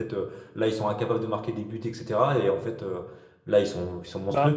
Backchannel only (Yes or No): Yes